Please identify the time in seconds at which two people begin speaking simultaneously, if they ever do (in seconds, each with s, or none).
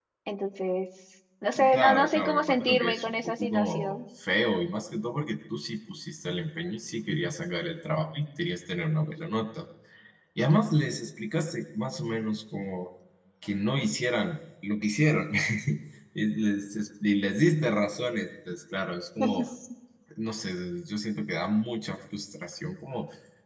1.7 s